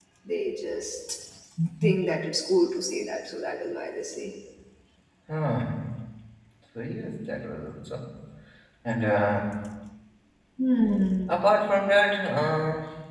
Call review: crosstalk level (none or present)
none